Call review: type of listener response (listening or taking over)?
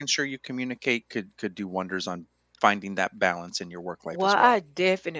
taking over